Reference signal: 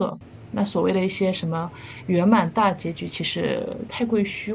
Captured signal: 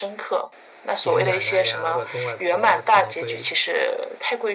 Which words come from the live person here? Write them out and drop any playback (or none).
爷爷奶奶呀、外公外婆啊，可能会